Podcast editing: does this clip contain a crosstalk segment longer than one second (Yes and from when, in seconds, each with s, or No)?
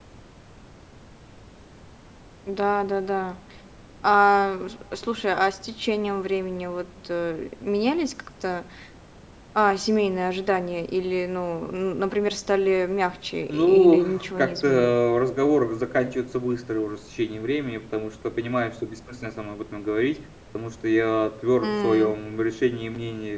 Yes, from 13.5 s